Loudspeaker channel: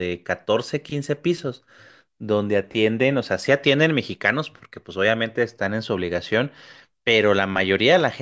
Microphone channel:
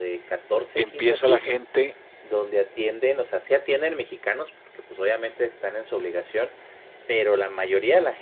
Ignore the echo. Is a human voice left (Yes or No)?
Yes